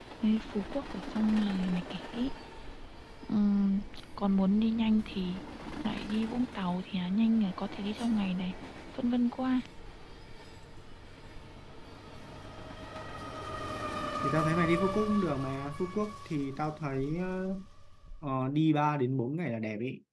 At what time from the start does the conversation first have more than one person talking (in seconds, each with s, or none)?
none